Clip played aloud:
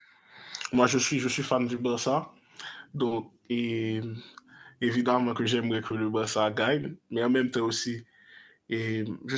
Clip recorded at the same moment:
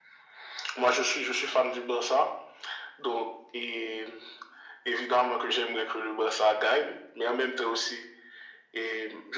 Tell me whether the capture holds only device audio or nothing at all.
Yes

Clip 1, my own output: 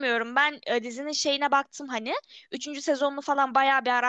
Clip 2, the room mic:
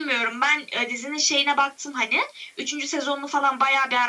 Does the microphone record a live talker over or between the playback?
No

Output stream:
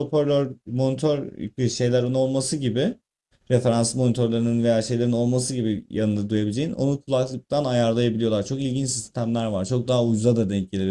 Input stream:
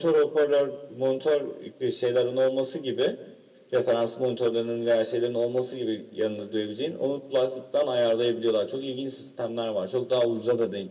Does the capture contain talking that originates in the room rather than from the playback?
No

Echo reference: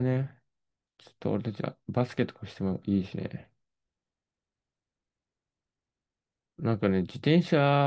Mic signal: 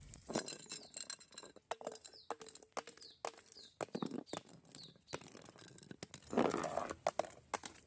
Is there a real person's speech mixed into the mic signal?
No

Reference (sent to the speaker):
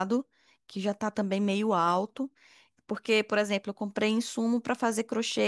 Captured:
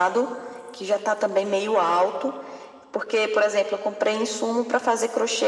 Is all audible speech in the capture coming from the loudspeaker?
Yes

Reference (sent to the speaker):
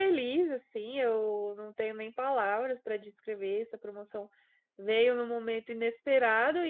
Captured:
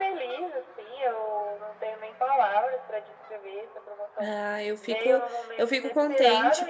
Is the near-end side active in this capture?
Yes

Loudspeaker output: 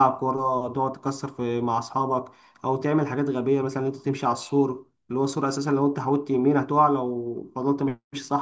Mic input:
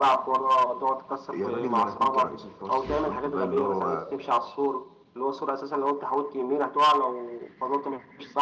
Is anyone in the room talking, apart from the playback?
Yes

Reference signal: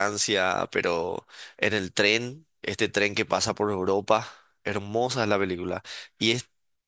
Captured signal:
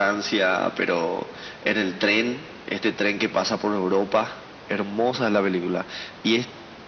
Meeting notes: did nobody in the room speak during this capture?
Yes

